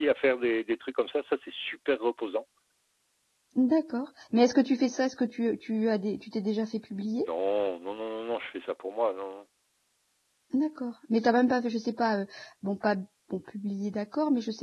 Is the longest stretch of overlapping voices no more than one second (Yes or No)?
Yes